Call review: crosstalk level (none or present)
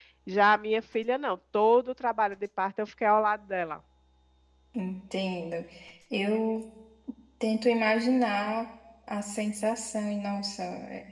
none